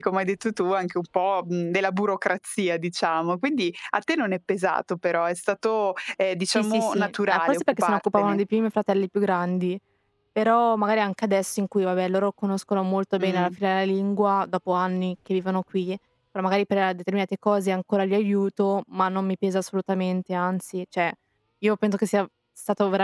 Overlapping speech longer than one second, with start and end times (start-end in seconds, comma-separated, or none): 6.5-8.4